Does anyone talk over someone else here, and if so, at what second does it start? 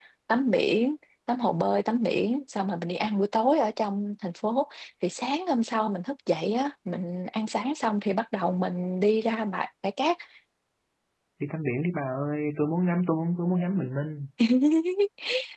none

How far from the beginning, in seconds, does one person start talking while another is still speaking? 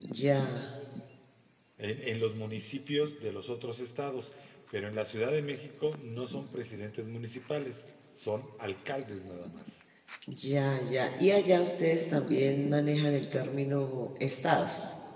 none

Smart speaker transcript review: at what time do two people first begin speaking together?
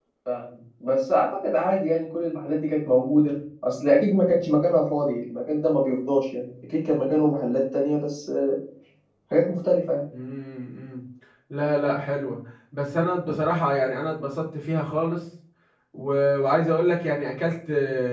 none

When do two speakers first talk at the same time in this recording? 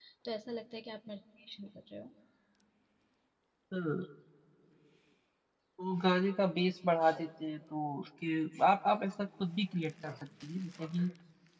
none

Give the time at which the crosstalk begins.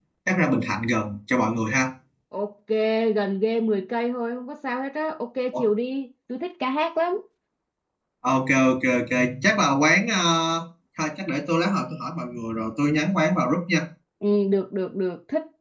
none

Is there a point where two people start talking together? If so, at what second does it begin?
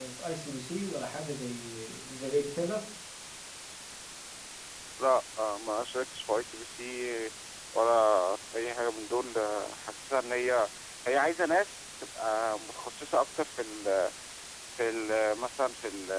none

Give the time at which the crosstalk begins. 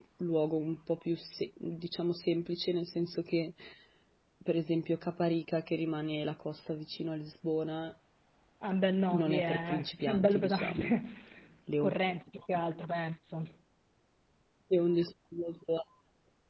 9.1 s

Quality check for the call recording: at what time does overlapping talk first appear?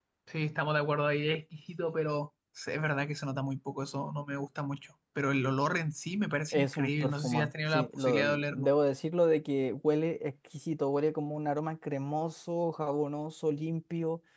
6.5 s

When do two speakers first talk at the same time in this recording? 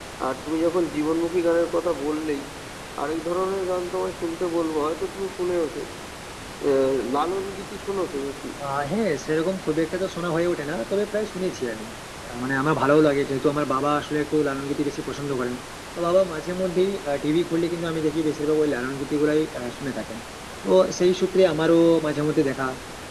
none

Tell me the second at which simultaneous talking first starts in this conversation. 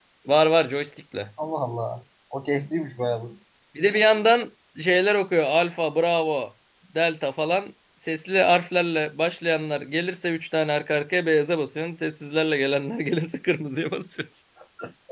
none

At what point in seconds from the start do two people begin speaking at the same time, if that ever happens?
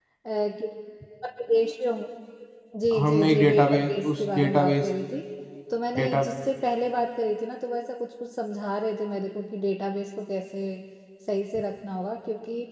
3.0 s

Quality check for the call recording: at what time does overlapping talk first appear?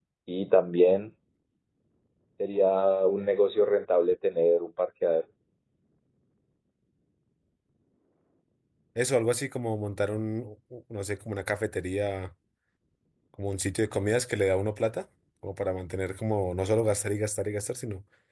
none

